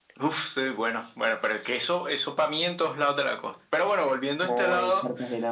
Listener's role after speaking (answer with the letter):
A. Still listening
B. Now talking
B